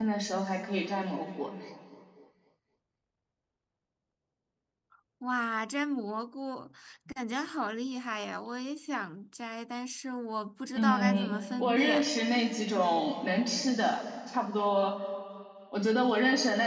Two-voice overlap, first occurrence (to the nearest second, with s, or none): 11 s